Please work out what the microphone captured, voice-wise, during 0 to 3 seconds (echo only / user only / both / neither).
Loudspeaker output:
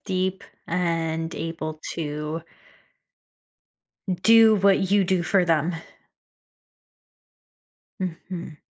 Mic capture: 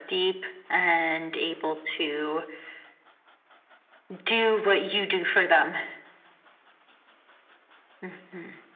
echo only